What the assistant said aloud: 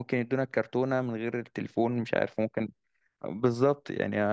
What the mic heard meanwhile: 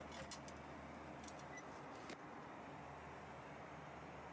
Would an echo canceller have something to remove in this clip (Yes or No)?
No